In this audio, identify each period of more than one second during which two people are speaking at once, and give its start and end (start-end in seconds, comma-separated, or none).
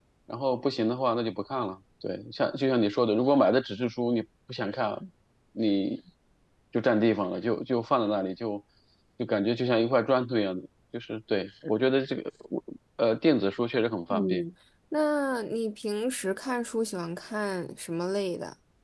none